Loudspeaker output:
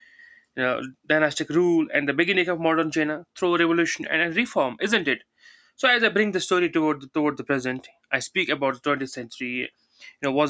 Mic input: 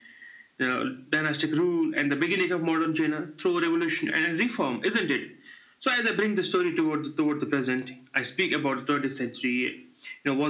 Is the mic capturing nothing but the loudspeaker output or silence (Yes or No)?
Yes